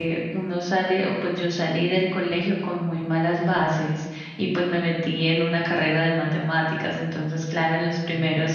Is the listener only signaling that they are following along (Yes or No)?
Yes